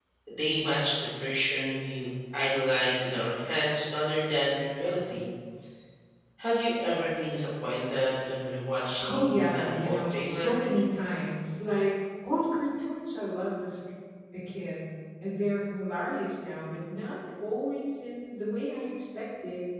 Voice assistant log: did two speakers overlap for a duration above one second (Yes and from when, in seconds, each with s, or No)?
Yes, from 9.0 s